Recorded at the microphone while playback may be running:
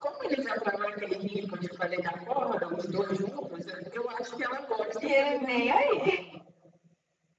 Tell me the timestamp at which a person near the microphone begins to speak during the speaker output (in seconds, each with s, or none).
5.0 s